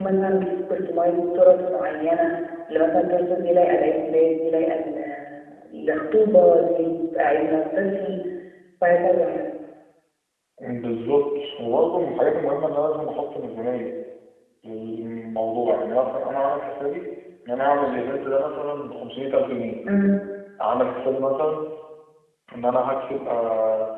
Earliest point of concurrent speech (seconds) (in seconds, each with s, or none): none